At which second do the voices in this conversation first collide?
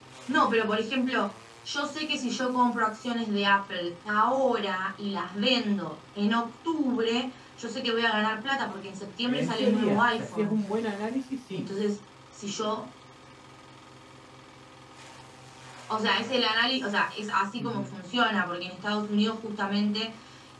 9.2 s

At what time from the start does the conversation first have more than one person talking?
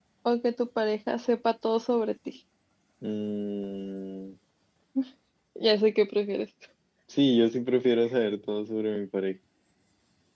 none

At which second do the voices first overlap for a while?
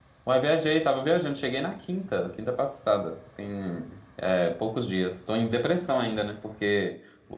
none

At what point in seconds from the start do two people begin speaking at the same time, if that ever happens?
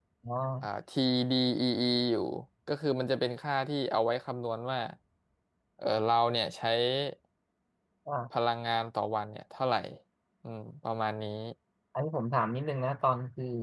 none

